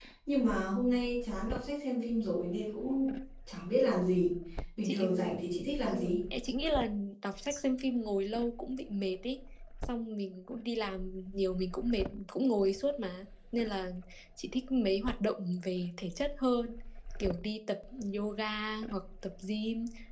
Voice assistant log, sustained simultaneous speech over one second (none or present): none